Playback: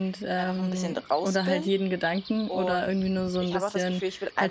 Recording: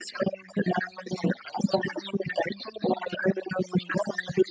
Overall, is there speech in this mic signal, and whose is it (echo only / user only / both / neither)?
echo only